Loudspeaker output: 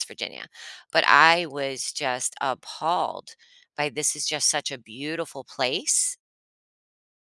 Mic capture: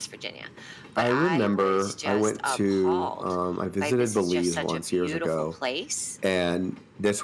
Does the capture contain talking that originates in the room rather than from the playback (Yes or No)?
Yes